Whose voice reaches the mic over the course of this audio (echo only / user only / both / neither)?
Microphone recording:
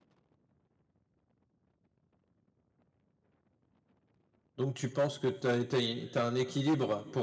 user only